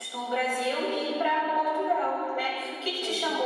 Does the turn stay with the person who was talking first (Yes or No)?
Yes